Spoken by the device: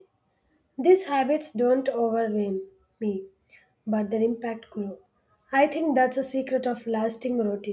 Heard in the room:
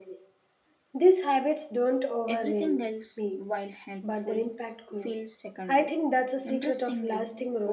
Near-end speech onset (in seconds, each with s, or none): 2.3 s